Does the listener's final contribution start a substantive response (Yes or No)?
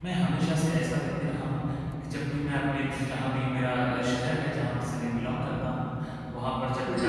No